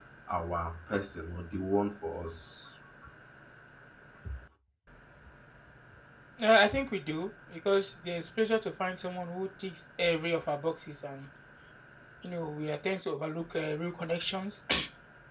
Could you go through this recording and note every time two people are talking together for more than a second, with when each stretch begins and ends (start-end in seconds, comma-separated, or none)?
none